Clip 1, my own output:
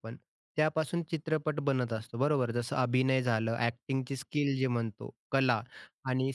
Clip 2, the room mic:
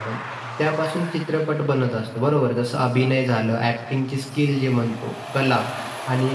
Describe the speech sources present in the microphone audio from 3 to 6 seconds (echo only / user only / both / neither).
echo only